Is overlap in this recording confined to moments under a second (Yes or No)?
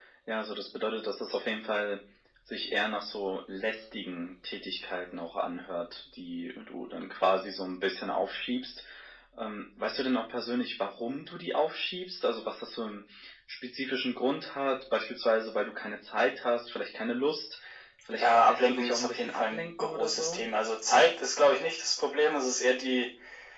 No